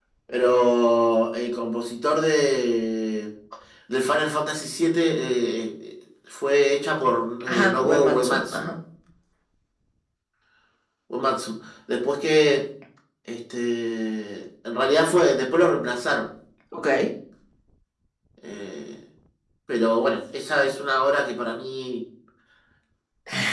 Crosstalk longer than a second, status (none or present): present